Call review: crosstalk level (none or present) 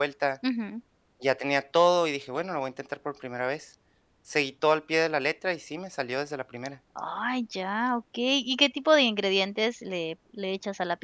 none